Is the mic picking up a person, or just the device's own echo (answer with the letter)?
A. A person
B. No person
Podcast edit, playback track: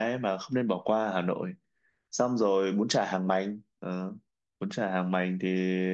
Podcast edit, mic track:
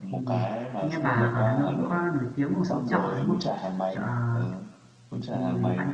A